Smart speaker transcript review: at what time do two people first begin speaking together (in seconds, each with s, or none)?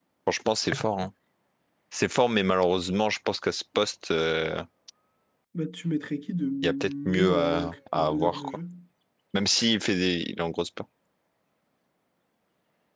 6.6 s